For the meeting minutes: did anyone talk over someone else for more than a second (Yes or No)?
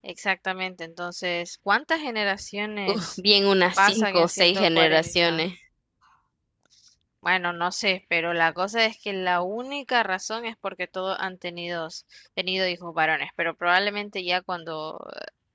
Yes